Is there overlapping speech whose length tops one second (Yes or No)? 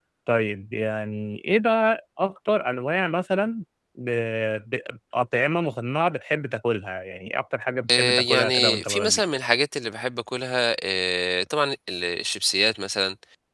Yes